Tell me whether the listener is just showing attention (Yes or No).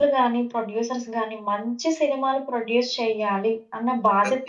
Yes